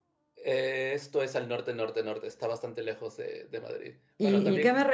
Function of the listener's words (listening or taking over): taking over